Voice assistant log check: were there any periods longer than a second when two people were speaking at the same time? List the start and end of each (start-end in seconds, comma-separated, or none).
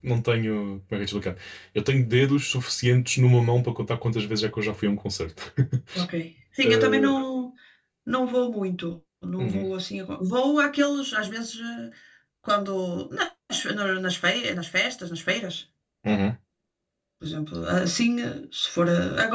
none